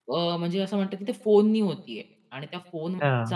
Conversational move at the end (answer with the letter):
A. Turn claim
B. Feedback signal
B